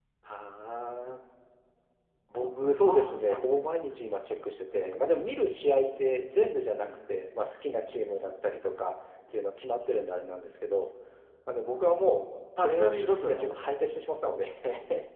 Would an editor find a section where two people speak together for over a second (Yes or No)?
Yes